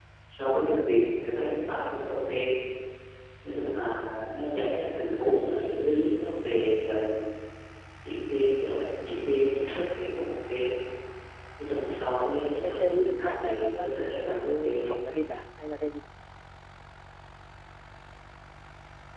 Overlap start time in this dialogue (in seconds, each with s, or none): 12.6 s